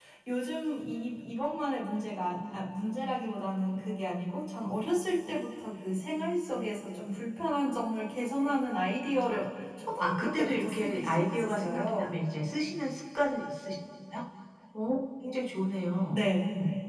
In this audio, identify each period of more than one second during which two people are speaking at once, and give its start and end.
10.0-12.1

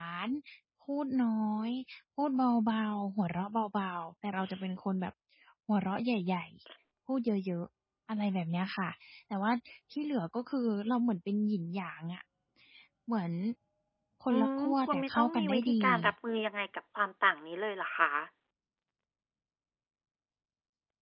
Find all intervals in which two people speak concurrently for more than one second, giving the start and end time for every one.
14.3-15.8

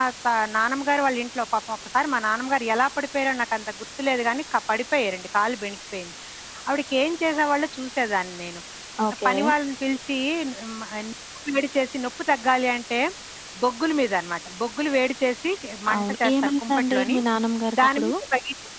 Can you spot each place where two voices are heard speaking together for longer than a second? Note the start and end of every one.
16.0-17.2

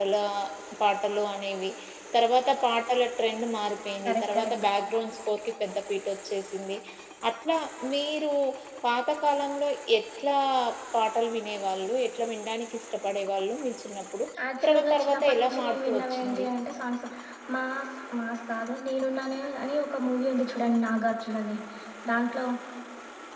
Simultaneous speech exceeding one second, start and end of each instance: 14.6-16.5

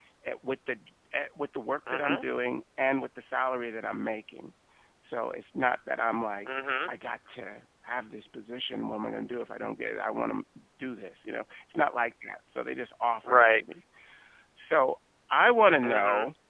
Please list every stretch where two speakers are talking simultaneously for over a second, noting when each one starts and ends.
none

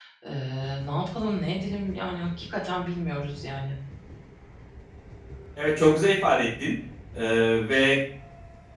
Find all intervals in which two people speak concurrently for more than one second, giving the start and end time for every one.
none

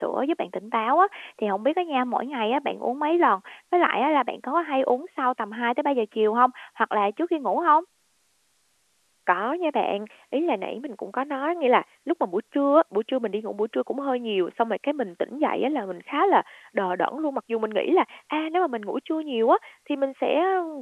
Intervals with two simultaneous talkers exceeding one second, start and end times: none

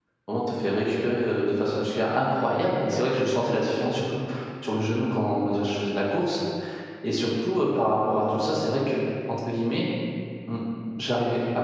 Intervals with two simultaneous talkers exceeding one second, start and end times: none

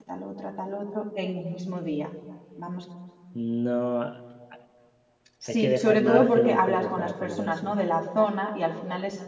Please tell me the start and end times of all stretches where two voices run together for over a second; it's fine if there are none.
5.5-7.7

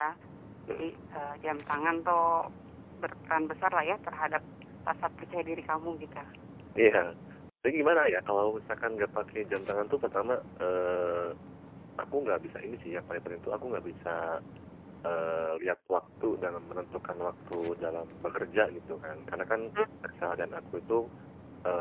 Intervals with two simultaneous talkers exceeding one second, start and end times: none

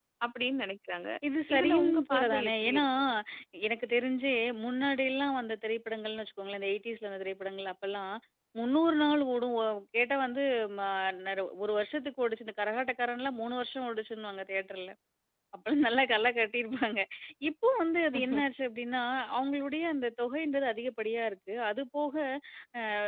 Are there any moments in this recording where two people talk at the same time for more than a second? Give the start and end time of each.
1.6-2.8

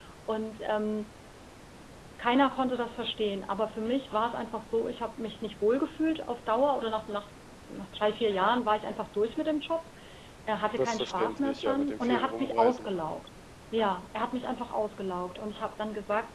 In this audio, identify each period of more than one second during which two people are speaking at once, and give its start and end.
10.8-12.9

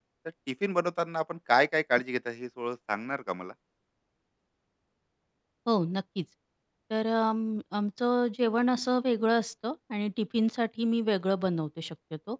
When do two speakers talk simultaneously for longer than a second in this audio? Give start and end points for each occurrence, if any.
none

